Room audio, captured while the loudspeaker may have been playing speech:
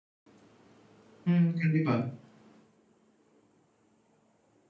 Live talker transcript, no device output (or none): ம். கண்டிப்பா.